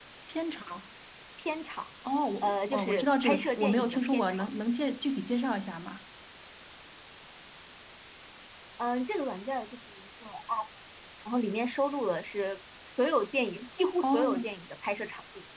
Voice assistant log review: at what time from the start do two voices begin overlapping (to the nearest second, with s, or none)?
2 s